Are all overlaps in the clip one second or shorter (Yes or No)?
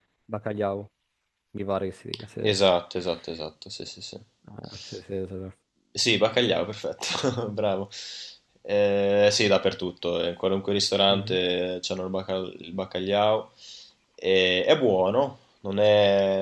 Yes